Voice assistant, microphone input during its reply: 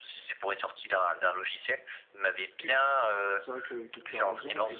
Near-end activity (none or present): present